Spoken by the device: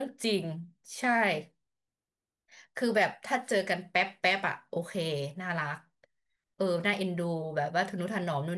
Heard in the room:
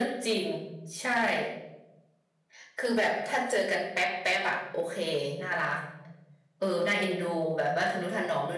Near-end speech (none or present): none